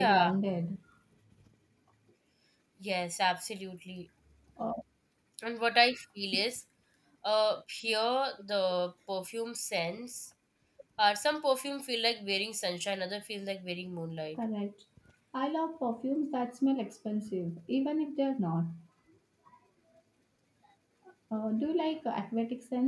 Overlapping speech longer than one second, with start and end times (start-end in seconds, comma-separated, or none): none